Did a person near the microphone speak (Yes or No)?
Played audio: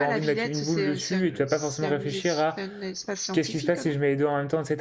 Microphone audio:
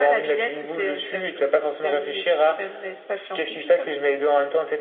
No